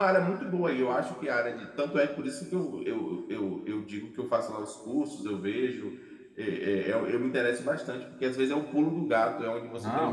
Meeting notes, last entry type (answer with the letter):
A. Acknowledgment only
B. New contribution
B